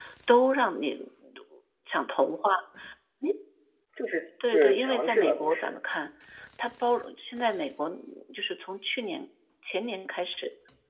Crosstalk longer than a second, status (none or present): present